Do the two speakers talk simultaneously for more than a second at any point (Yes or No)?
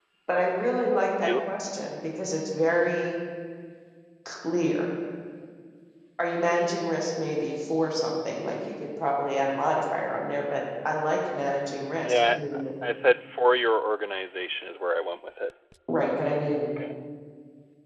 No